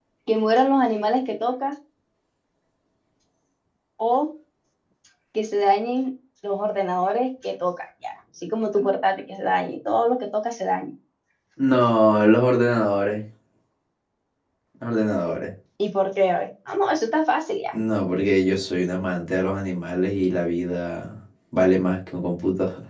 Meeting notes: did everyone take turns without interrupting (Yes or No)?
Yes